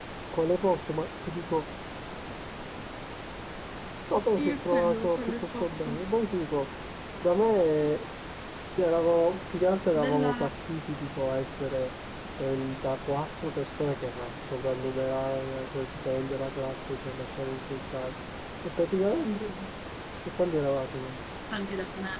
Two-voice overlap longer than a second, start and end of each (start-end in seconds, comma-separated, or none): 4.2-6.0